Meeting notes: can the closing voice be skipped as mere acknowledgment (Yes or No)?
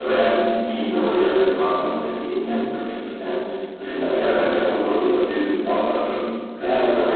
Yes